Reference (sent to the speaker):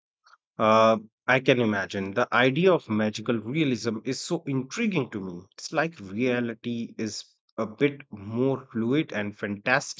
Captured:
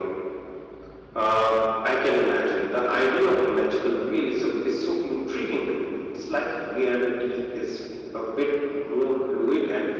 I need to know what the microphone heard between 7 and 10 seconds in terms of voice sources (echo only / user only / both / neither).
echo only